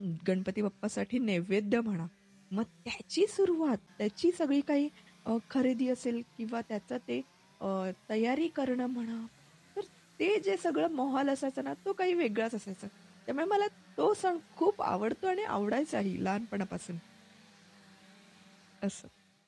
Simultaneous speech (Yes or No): No